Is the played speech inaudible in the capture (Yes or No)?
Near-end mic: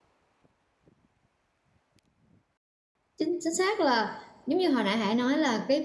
Yes